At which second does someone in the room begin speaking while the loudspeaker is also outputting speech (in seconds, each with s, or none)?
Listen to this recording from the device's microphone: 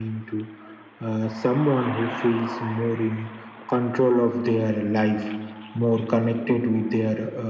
none